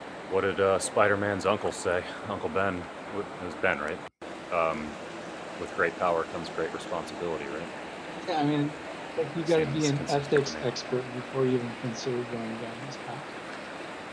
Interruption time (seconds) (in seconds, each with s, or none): 9.4 s